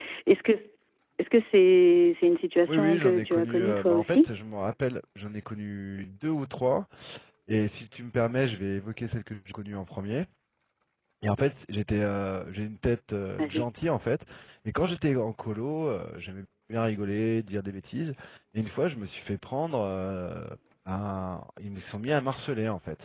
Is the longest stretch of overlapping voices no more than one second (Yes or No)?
No